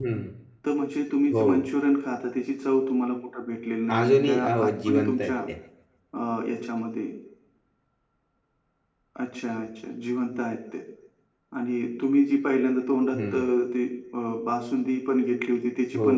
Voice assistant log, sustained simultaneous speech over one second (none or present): present